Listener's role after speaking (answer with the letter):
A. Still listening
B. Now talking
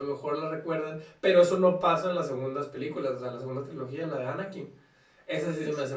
A